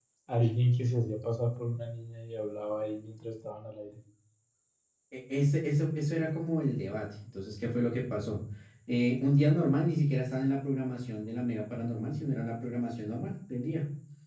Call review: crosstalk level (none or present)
none